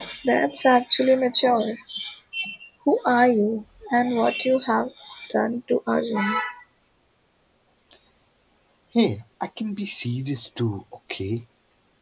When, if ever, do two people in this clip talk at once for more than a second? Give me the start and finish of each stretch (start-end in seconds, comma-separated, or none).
none